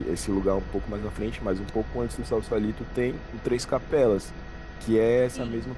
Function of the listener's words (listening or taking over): listening